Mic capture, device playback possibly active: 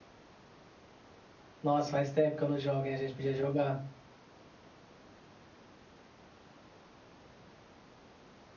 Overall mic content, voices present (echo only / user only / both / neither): user only